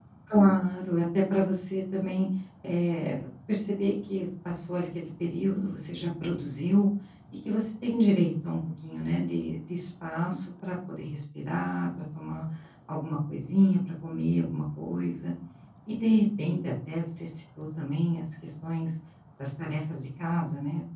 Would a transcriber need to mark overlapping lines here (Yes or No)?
No